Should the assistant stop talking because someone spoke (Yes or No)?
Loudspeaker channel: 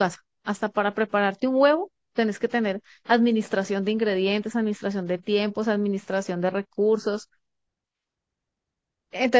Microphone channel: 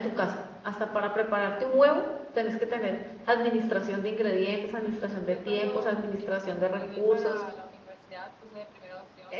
Yes